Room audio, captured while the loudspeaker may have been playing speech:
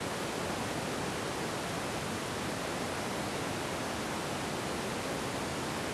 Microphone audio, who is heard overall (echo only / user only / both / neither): neither